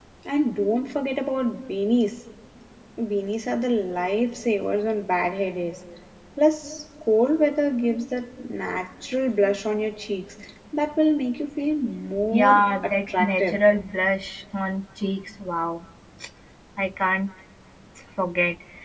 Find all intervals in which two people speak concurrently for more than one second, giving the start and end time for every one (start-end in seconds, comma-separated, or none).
12.3-13.6